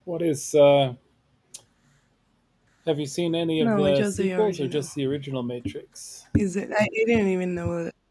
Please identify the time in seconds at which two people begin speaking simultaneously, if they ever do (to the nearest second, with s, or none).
4 s